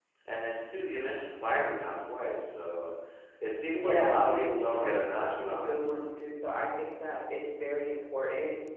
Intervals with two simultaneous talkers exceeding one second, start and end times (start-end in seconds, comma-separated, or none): 3.7-5.7